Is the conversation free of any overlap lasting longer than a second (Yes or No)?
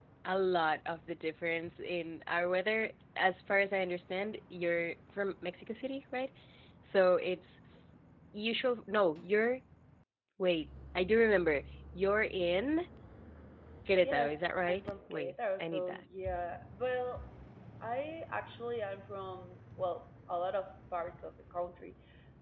No